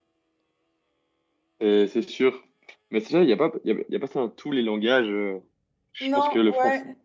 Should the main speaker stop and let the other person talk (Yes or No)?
Yes